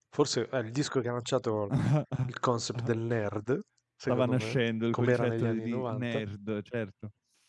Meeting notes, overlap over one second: present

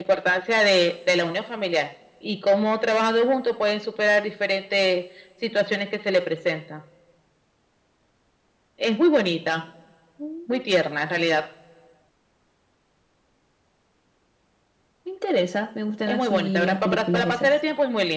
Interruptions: present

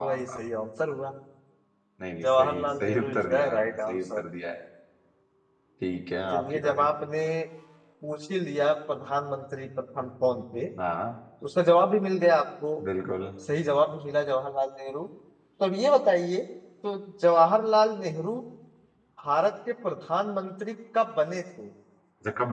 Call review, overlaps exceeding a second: present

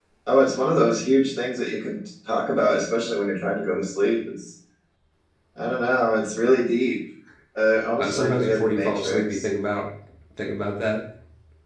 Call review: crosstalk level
present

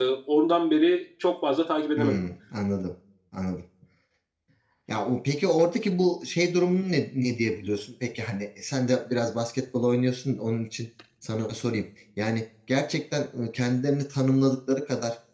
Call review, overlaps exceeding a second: none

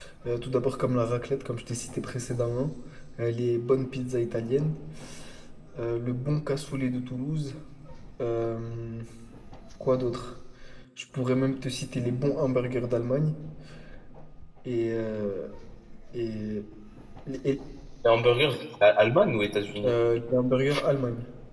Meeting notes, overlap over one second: none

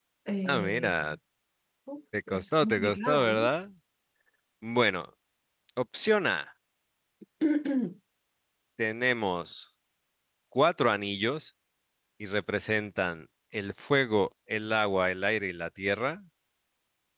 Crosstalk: present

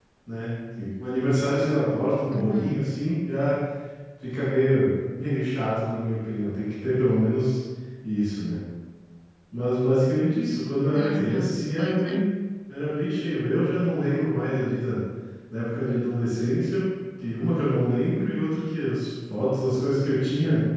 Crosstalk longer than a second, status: present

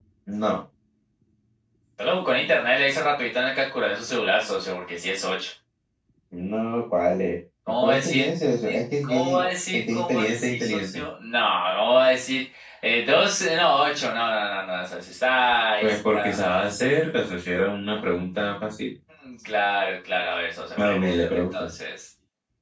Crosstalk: present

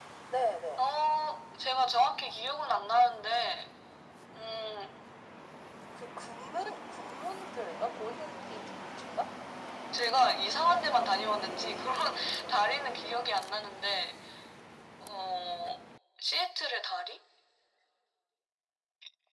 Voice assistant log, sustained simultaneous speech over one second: none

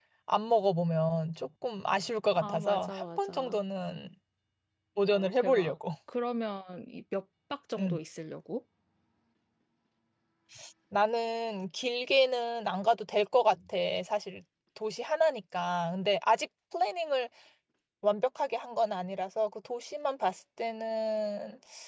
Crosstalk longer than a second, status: present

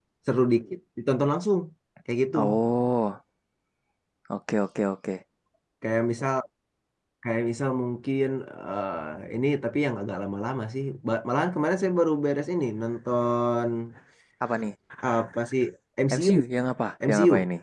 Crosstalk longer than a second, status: none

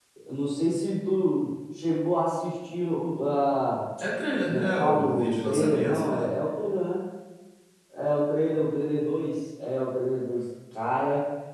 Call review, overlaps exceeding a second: present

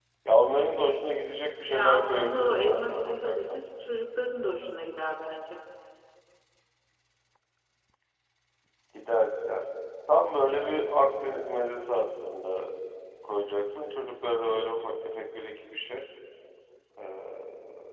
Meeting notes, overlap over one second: present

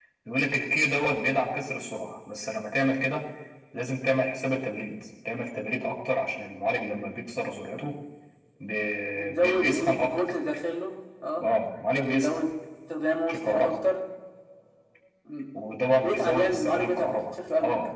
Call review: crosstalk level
present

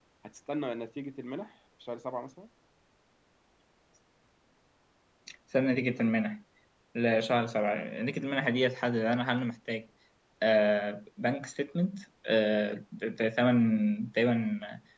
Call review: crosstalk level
none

